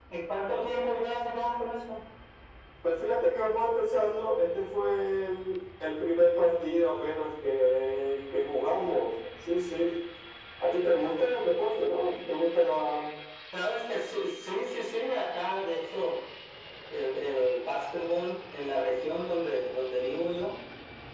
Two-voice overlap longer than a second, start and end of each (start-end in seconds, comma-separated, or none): none